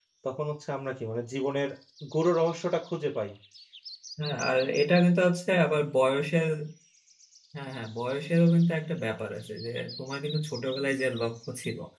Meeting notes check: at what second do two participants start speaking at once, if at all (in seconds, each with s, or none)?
none